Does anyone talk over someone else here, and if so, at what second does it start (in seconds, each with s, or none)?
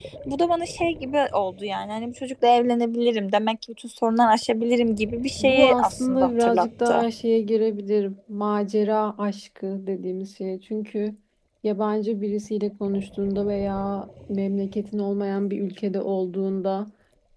5.4 s